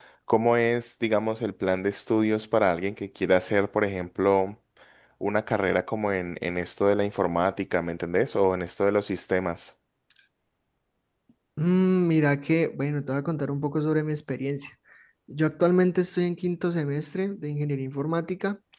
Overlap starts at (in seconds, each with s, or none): none